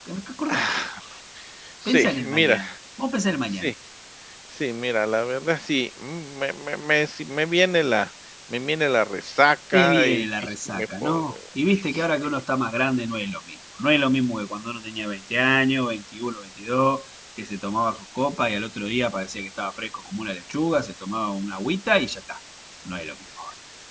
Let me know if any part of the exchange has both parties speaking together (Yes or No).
Yes